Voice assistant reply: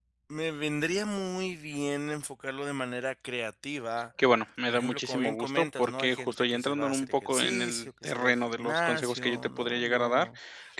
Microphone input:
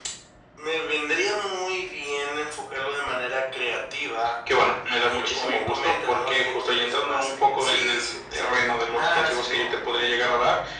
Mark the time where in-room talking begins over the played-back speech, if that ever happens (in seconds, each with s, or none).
none